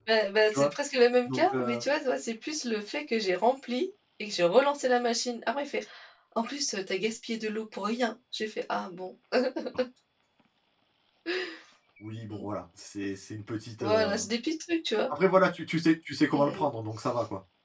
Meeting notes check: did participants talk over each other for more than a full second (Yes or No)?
No